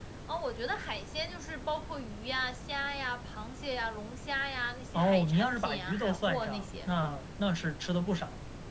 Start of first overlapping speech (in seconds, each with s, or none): 4.9 s